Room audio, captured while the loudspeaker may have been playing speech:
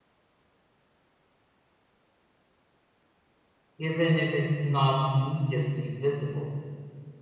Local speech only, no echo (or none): even if it's not immediately visible.